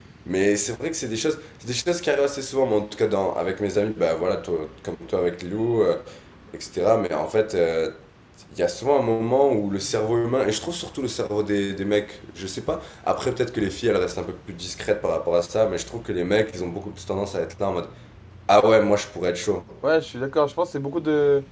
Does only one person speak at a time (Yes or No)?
Yes